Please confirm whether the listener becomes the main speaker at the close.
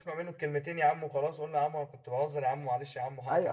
Yes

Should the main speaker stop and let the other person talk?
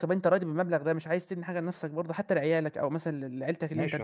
Yes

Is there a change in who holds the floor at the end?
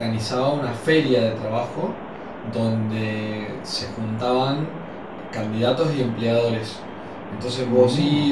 No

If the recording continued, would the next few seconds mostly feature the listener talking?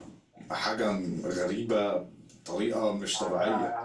Yes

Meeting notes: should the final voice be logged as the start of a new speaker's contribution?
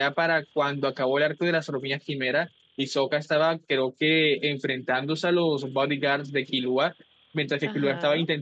No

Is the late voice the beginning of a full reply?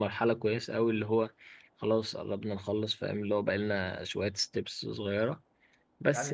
Yes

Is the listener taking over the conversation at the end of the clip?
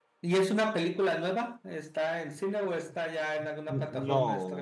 Yes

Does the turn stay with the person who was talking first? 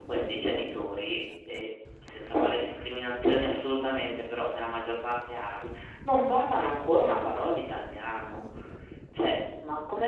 Yes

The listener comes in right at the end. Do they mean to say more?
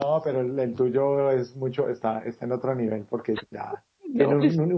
No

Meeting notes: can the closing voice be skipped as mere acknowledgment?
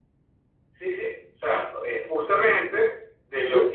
Yes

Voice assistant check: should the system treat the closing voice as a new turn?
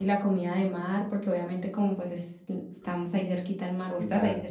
Yes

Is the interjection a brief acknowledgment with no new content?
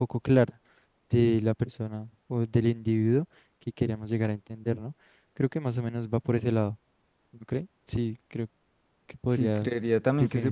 No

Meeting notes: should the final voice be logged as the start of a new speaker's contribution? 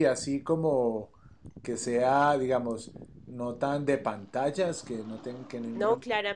Yes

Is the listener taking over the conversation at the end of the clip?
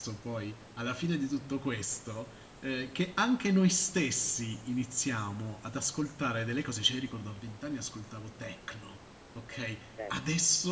No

